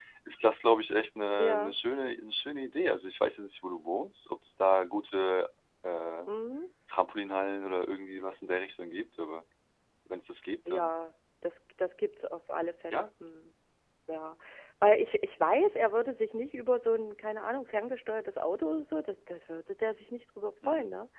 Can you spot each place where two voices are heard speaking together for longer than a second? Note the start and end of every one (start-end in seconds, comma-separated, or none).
none